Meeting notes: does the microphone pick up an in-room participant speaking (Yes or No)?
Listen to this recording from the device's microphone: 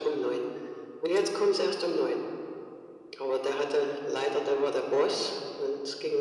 No